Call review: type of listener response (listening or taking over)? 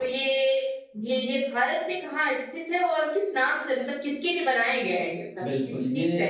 taking over